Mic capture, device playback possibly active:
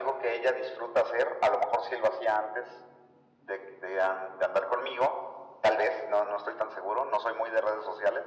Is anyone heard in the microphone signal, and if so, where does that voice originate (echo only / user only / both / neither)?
echo only